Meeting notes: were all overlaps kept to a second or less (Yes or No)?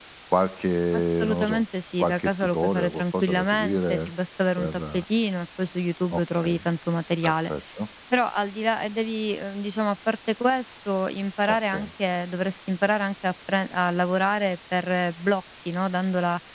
No